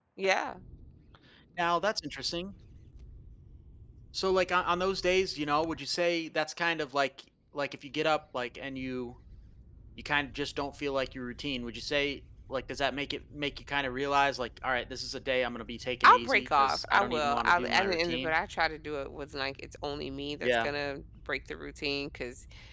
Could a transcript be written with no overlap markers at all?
No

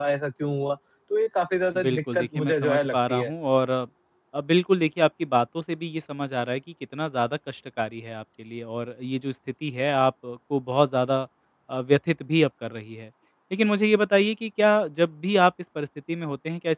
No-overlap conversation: No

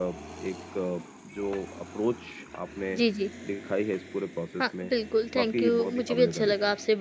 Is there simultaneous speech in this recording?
Yes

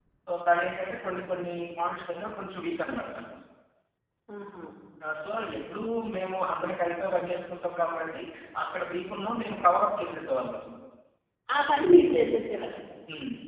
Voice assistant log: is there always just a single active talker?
Yes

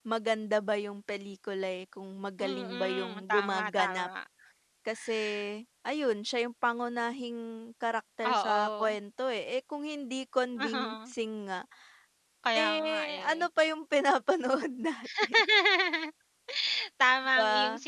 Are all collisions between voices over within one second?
No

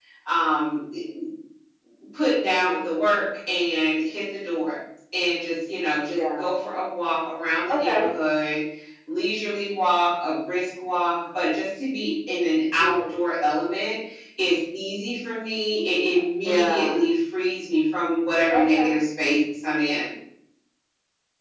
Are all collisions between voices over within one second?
Yes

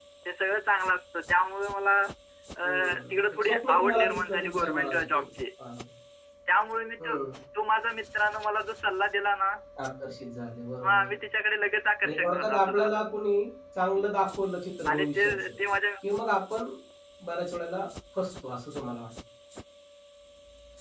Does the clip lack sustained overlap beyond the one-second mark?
No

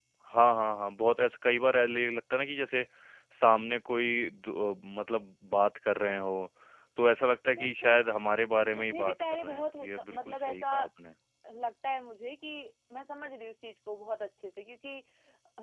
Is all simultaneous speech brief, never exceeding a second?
No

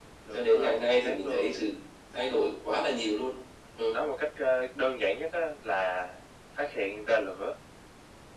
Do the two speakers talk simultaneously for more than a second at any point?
Yes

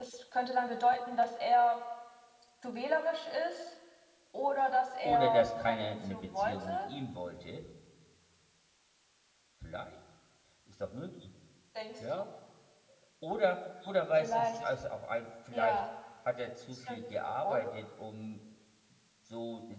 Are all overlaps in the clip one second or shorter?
No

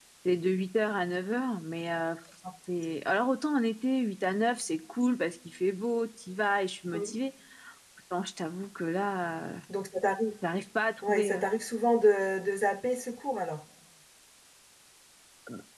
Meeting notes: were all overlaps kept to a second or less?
Yes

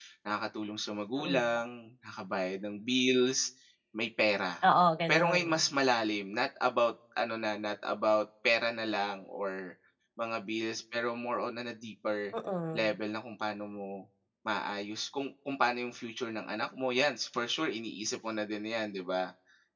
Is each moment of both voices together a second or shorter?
Yes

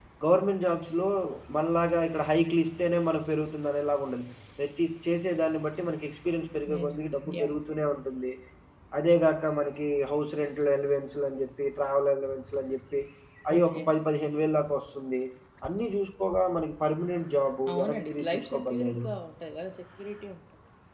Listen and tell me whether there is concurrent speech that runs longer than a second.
Yes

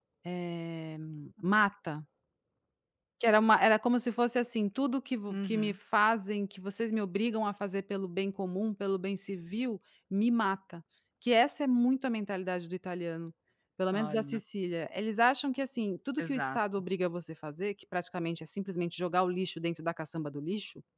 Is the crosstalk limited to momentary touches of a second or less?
Yes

